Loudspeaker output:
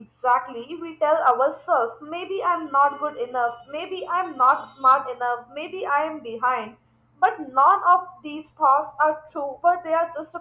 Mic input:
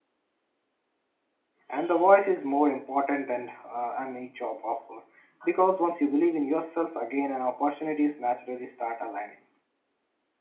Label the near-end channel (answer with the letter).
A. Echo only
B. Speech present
B